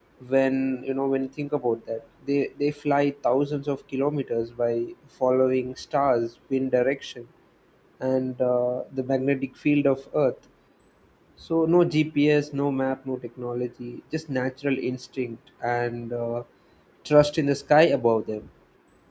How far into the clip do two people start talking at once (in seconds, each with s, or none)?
none